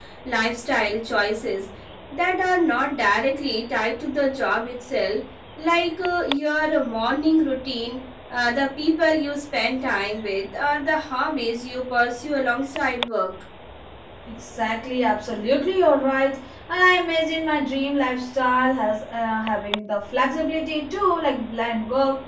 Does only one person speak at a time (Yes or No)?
Yes